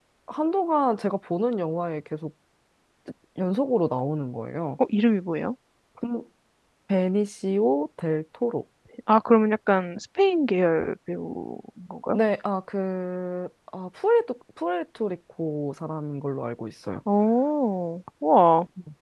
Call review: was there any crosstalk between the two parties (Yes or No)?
No